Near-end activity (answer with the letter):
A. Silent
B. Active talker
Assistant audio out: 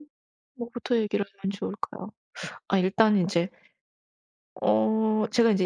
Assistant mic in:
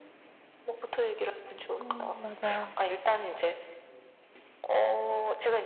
B